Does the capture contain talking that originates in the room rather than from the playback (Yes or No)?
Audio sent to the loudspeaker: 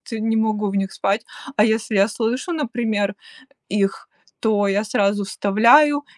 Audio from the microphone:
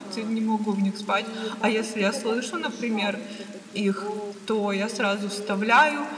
Yes